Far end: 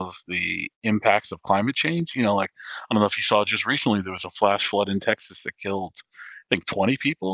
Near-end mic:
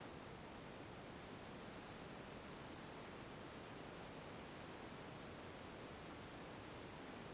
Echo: none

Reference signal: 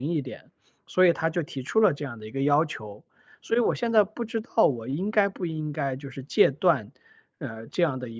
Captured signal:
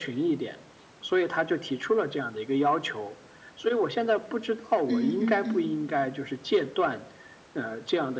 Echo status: present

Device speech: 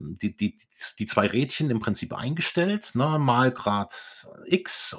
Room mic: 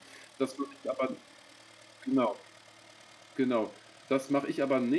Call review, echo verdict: none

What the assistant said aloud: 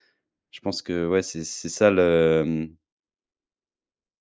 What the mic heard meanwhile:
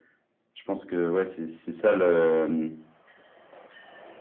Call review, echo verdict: present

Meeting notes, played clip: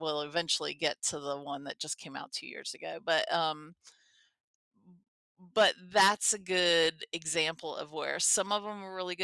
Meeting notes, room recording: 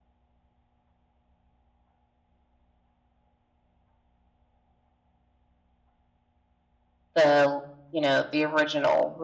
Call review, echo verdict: none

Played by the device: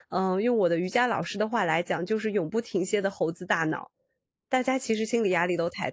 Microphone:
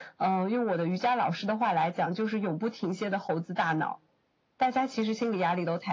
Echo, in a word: present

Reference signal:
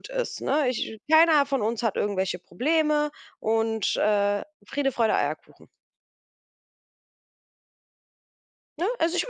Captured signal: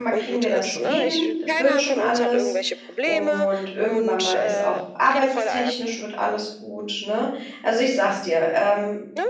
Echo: present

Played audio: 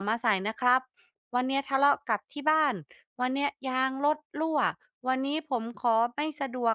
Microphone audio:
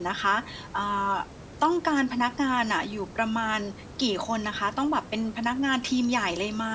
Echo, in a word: none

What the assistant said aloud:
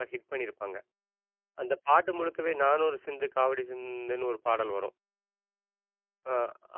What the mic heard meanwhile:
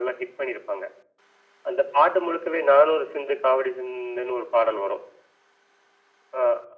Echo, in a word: present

